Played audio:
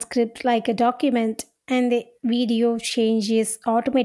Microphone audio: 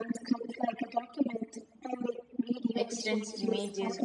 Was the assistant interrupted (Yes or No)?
Yes